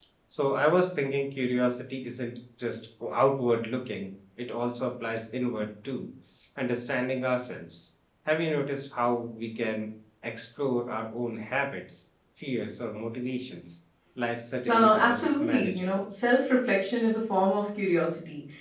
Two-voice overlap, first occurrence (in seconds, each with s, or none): 14.7 s